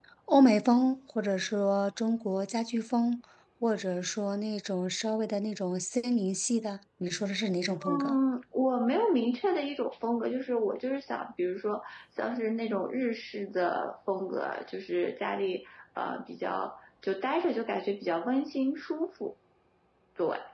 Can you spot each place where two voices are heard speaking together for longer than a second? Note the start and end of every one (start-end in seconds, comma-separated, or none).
none